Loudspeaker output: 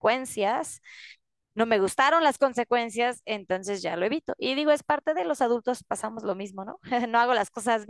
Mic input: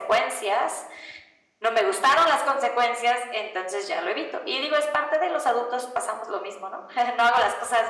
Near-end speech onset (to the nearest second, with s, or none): none